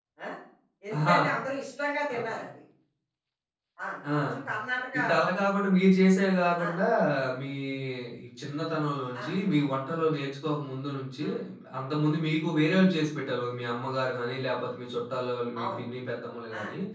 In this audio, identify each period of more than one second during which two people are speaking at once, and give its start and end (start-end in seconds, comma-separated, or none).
none